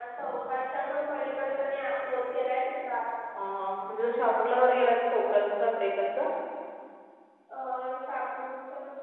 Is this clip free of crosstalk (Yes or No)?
Yes